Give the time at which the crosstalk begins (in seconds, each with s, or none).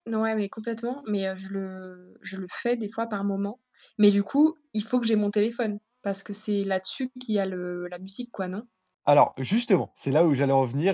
none